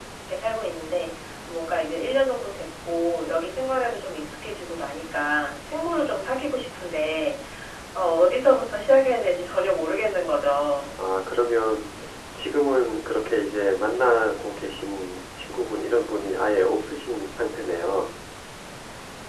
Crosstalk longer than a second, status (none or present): none